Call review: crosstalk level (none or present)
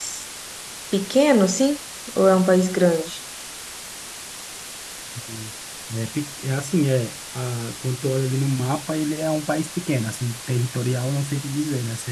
none